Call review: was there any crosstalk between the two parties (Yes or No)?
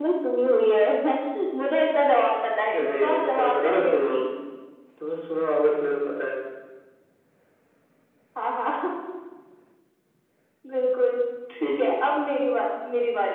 Yes